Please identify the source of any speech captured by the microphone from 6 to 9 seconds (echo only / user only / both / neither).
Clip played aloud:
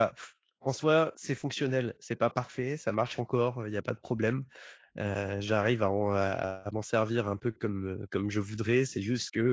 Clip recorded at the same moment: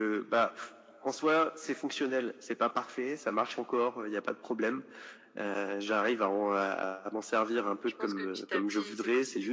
both